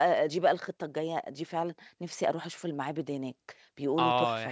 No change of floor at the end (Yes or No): No